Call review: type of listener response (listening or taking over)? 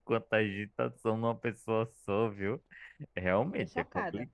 listening